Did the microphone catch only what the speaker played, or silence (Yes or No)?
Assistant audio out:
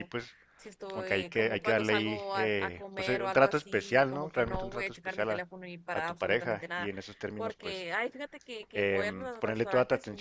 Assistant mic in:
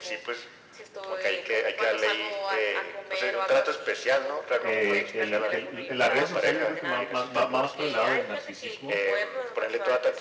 No